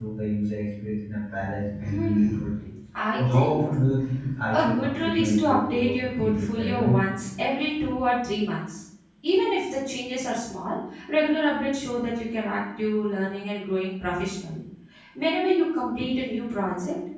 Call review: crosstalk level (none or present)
present